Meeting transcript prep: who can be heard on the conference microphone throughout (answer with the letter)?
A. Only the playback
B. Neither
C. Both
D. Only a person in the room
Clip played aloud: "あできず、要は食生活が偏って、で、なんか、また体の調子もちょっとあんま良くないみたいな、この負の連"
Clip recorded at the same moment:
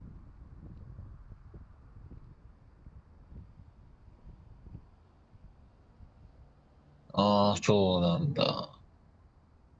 D